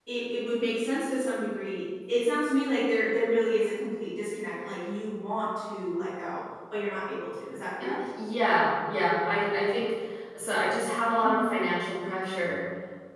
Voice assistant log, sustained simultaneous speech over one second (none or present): none